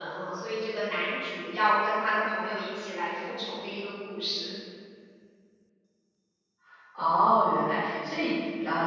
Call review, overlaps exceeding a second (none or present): none